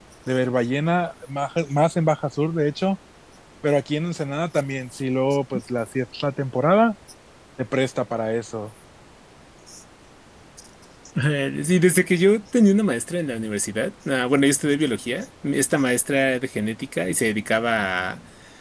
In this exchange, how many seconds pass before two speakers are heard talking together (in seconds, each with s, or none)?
none